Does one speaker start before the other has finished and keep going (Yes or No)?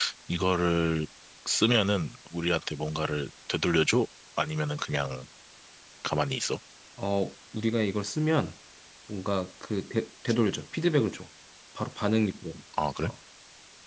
No